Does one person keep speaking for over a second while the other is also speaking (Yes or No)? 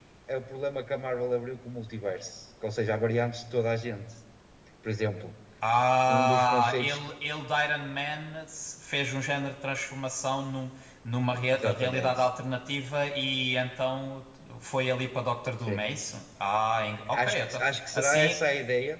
Yes